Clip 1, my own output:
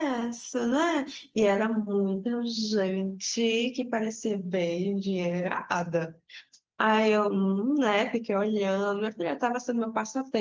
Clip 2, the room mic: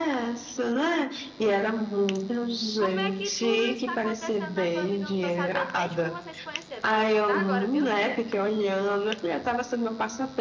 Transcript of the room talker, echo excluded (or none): Como é que tudo isso está acontecendo na tua vida? Eu não tô sabendo nem de como vocês se conheceram. Pode contar agora, viu, filha?